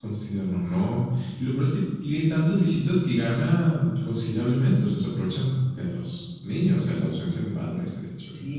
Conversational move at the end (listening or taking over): taking over